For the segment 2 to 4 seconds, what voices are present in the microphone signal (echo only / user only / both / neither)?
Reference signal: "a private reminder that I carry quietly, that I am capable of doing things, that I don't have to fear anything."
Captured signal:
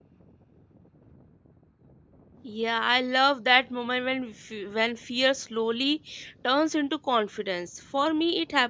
user only